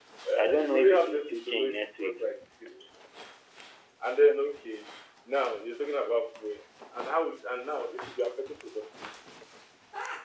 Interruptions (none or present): present